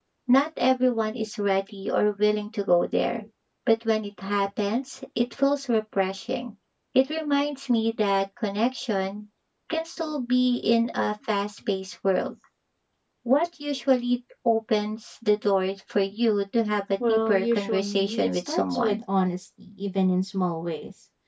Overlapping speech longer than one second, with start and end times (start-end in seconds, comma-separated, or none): 17.1-19.0